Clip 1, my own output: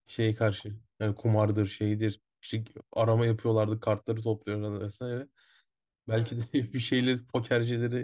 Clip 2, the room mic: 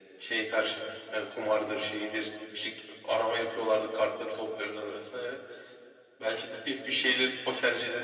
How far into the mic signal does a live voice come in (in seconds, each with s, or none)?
none